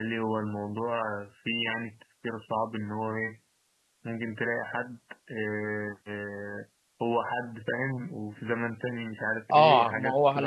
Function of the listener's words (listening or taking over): taking over